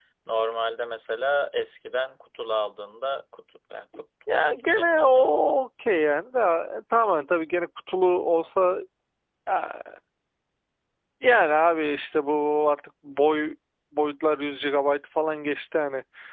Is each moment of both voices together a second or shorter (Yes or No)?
No